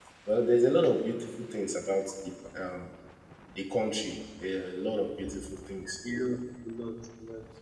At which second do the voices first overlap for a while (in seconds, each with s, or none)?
none